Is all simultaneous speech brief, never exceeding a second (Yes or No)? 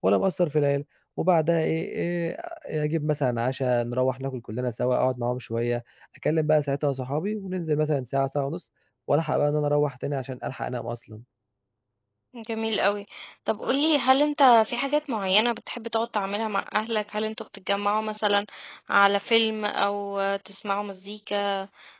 Yes